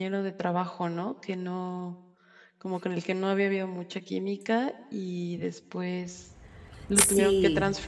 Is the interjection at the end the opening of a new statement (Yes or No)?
No